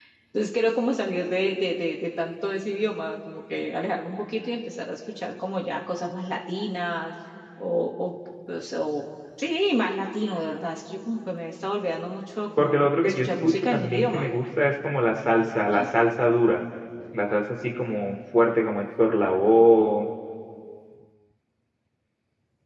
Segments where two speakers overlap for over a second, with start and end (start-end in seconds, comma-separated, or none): 12.6-14.3